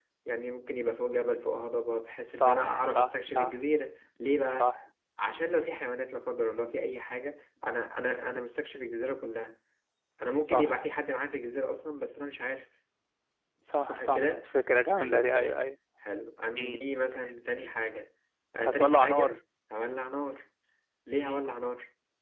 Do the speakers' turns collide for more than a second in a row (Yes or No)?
Yes